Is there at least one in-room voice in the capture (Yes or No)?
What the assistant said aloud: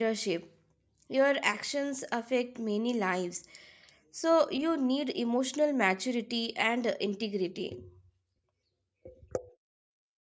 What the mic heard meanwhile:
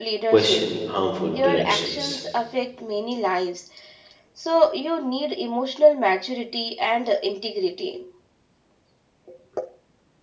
Yes